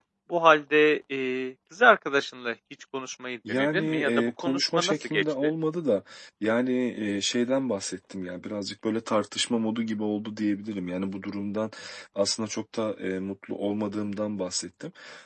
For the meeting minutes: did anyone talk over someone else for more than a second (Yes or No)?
Yes